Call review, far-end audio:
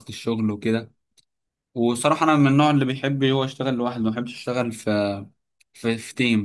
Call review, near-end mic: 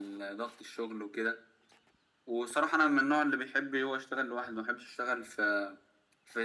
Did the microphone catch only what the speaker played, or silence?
Yes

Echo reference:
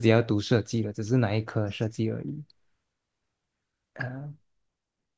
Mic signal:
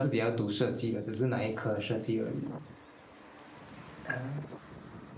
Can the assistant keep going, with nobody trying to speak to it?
Yes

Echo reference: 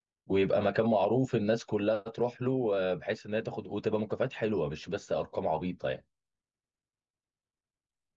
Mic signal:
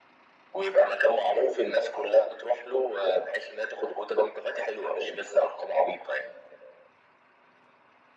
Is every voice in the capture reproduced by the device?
Yes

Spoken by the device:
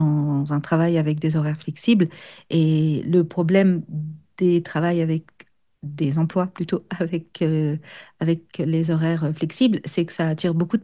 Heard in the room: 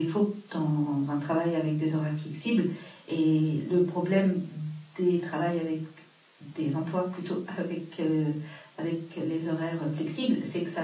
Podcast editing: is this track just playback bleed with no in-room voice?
Yes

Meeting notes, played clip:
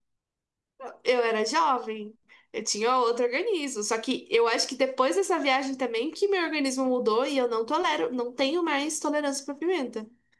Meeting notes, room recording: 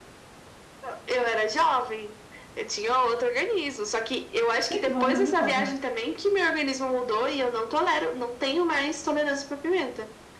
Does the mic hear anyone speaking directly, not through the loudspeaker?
Yes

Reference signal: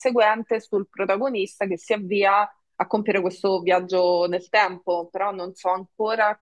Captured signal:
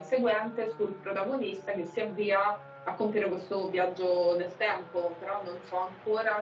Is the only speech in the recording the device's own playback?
Yes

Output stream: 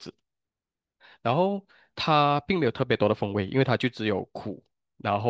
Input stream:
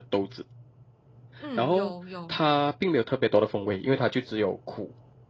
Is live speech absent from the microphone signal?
No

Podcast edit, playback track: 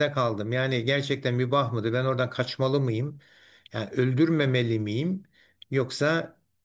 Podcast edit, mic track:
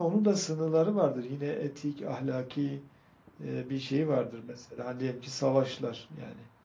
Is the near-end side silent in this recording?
No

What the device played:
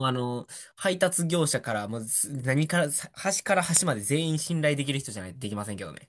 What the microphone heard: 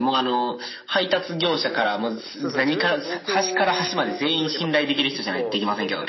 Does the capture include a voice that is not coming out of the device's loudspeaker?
Yes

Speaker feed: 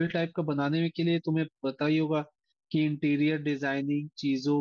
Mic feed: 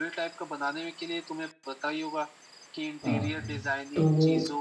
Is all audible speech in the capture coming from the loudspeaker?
No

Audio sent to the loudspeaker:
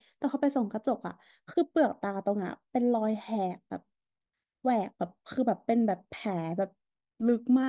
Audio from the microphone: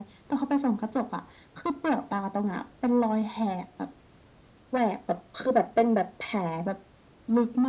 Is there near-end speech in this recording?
No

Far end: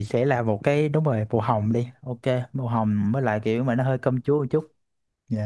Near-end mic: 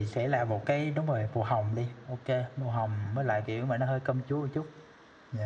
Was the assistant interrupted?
No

